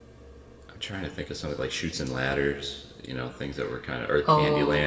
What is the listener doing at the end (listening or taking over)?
taking over